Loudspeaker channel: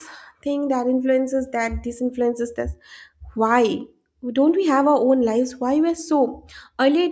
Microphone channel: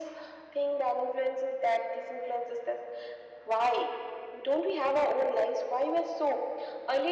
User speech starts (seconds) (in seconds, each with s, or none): none